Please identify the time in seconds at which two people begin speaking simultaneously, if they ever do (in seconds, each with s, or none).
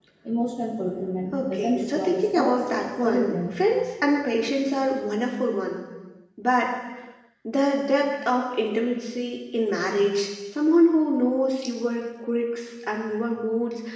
1.3 s